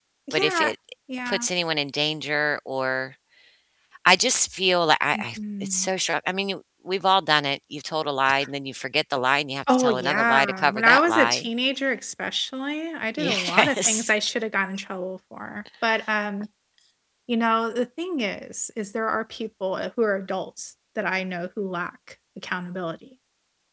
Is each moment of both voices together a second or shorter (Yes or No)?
No